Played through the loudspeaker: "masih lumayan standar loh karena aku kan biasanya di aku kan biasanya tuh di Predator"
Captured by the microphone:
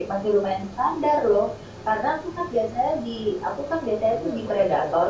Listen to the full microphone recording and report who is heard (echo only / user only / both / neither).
both